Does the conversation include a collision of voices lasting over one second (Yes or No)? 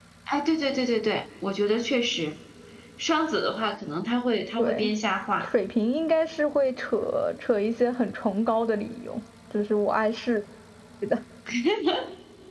No